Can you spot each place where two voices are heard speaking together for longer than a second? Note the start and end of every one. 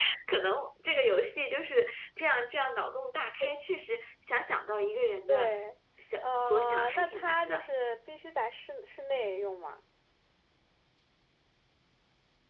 6.2-7.7

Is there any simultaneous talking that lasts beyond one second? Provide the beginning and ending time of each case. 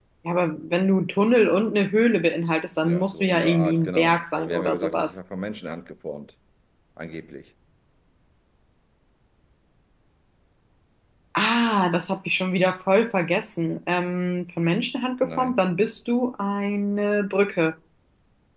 2.8-5.2

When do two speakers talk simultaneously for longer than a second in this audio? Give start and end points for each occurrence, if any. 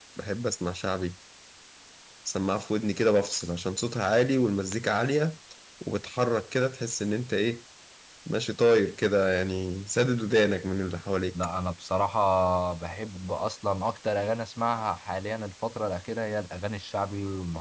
none

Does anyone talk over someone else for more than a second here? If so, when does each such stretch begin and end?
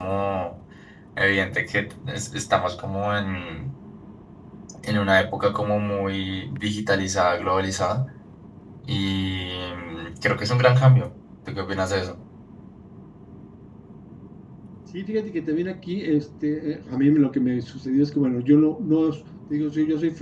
none

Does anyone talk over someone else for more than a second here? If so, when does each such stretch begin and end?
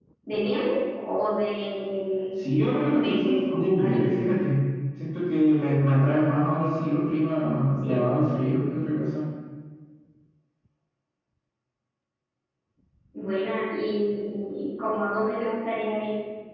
2.8-4.1

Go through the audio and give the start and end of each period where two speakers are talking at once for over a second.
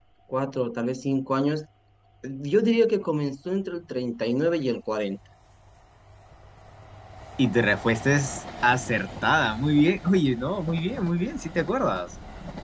none

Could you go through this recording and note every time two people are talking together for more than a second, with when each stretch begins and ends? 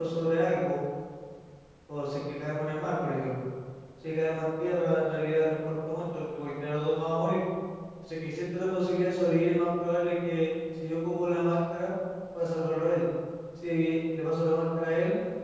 none

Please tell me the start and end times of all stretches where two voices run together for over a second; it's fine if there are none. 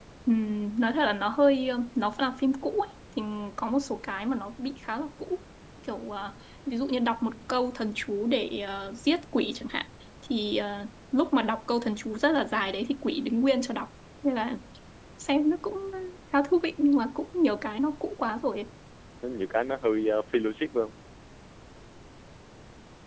none

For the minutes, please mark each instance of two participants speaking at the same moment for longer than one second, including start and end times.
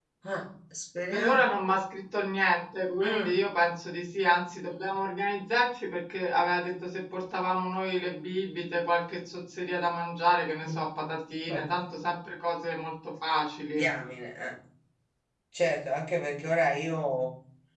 none

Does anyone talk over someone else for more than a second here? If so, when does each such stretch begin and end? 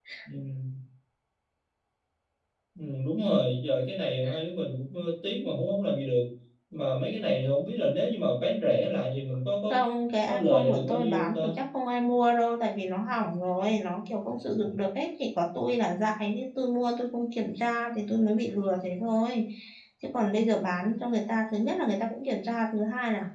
10.2-11.5

